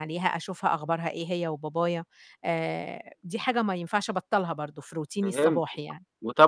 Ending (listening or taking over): taking over